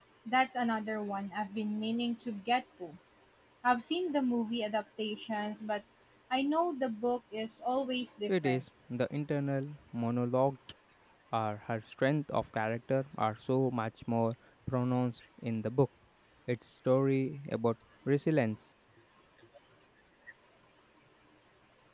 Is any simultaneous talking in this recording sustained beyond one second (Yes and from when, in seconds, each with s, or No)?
No